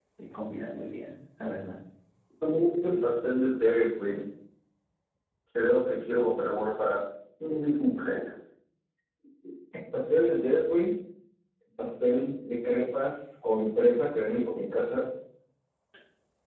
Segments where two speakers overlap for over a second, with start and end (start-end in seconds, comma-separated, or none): none